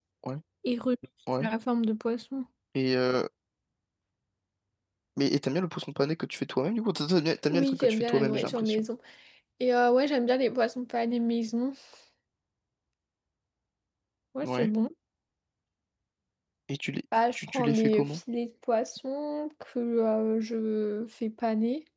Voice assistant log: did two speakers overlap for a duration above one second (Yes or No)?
Yes